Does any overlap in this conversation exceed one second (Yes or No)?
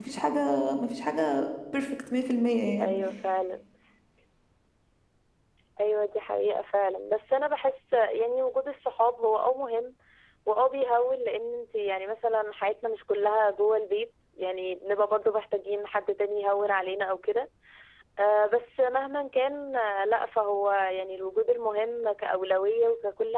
No